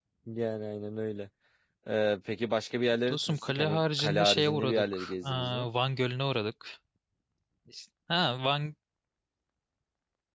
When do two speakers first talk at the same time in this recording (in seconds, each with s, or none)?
3.1 s